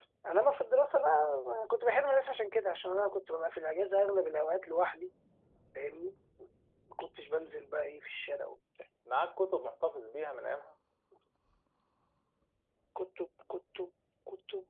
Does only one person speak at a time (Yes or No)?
Yes